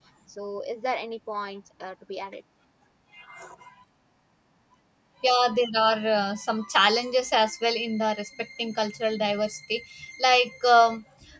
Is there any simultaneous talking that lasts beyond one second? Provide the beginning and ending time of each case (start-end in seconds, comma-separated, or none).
none